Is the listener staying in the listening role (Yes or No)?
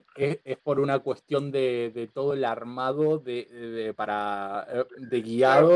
No